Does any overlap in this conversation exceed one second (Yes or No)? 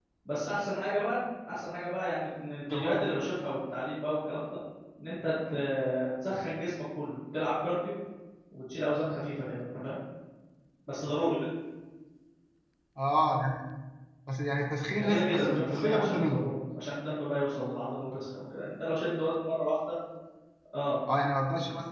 Yes